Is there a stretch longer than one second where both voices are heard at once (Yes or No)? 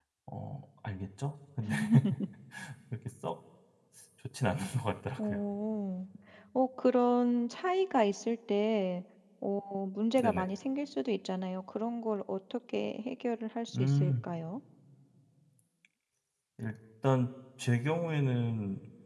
No